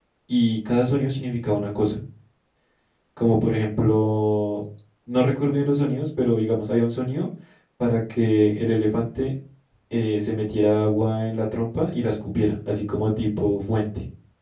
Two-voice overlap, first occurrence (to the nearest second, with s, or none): none